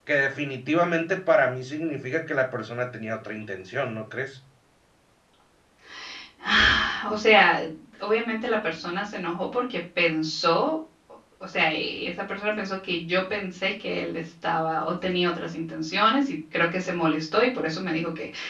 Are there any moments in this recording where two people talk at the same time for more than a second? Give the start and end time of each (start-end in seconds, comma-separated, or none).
none